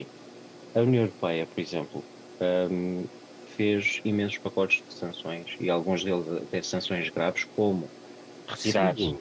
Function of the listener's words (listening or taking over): listening